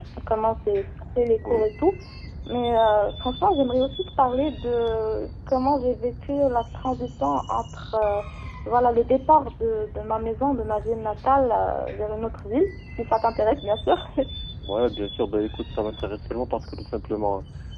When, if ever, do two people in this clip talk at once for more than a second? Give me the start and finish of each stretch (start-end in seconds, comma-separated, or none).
none